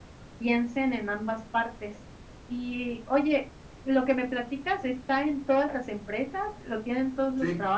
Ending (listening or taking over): taking over